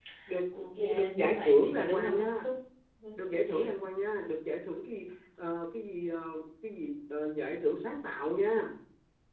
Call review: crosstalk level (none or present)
present